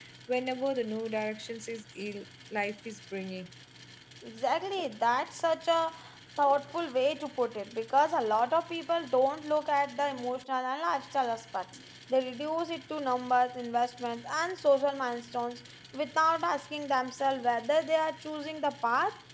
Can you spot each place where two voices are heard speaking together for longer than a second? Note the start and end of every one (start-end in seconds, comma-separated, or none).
none